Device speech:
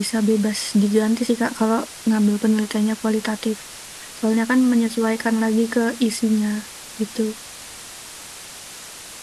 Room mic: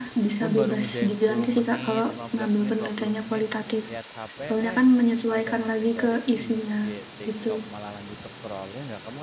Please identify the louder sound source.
echo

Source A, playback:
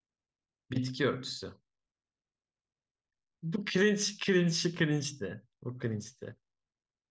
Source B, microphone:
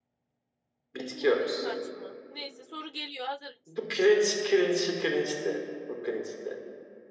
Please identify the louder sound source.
echo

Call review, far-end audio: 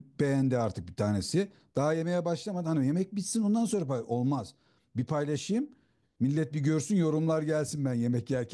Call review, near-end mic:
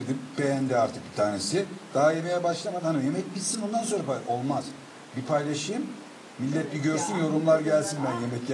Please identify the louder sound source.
echo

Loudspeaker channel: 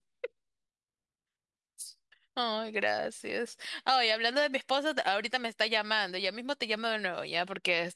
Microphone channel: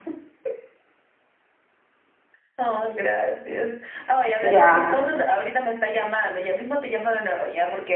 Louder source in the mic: user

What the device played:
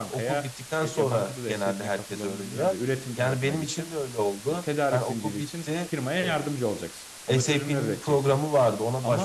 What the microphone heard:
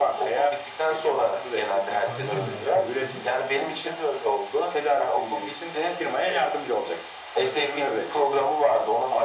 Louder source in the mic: echo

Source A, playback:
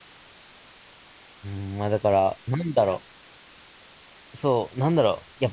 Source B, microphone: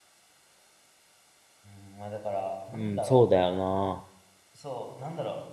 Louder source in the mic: user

